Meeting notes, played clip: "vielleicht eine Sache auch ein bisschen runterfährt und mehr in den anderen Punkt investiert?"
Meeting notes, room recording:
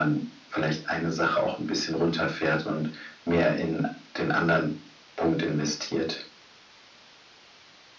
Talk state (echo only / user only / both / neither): echo only